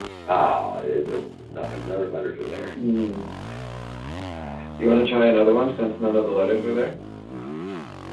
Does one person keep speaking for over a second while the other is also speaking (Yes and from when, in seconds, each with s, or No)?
No